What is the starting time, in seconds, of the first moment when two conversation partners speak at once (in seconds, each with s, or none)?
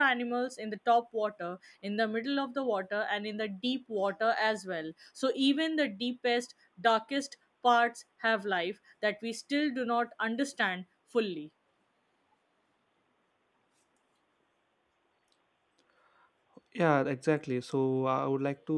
none